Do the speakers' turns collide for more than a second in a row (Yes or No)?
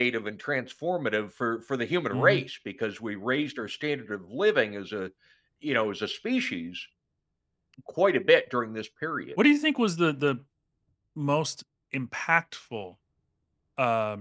No